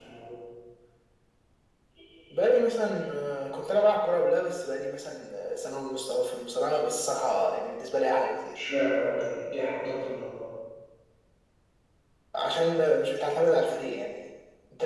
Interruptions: none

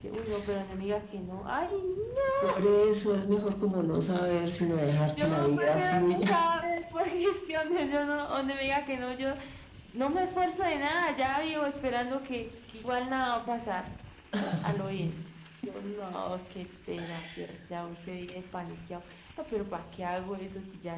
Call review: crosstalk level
present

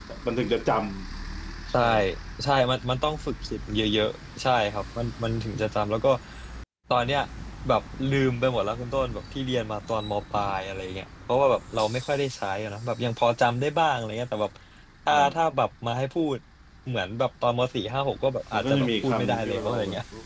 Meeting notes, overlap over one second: present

